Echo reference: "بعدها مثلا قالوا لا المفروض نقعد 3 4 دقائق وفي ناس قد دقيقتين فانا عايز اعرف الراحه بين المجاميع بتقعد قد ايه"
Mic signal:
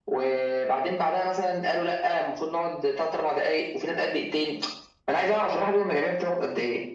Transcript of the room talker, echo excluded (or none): none